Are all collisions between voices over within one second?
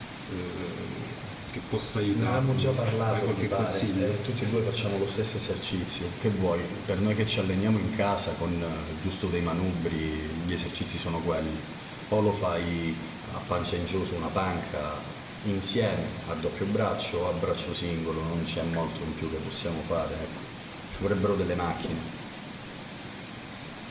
No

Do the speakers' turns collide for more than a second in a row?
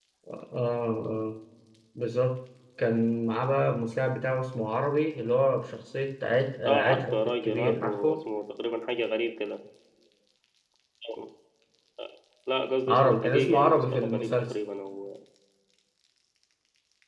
Yes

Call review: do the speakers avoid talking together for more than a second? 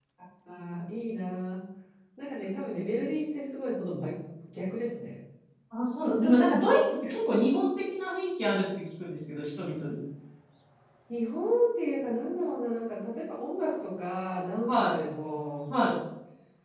Yes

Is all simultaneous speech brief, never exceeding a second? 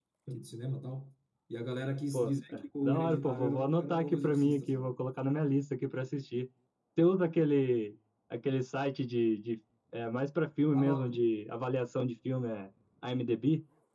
No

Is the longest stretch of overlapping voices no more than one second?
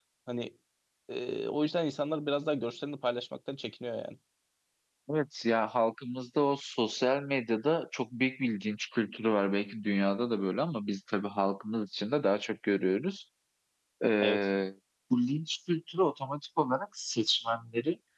Yes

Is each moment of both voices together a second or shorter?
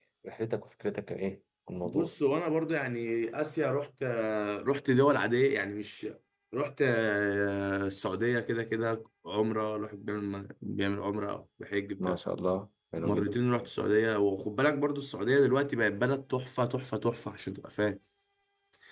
Yes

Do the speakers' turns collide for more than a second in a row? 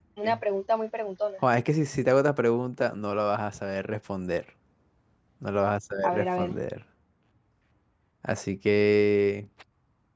No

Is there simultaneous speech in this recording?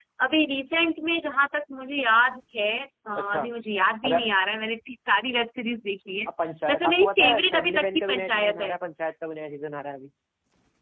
Yes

